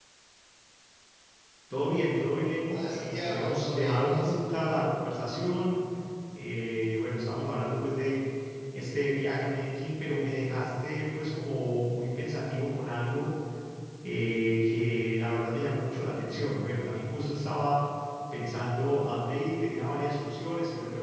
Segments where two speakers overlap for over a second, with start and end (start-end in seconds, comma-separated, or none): 2.7-4.3